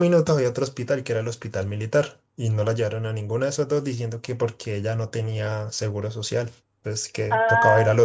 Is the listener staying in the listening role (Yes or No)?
No